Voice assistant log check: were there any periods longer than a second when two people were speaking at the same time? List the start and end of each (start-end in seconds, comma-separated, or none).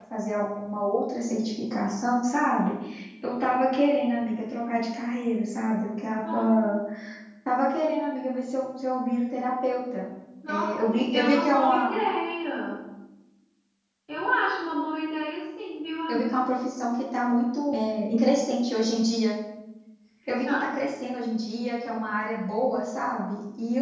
10.5-12.0